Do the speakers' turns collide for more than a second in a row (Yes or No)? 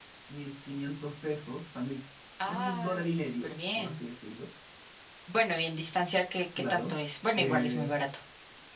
Yes